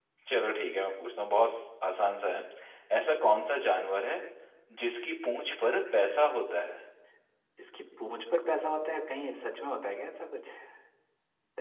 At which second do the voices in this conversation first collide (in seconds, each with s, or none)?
none